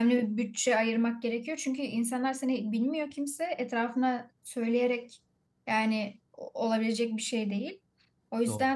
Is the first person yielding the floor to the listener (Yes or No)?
No